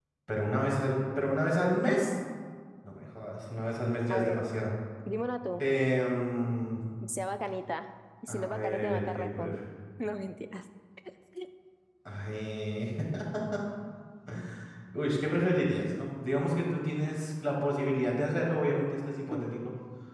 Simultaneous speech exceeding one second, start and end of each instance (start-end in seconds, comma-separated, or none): 8.3-9.6